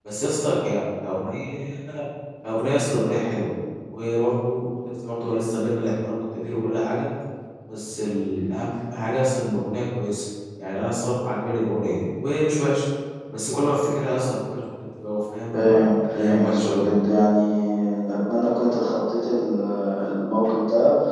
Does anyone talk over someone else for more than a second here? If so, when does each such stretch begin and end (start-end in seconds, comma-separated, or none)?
15.5-16.9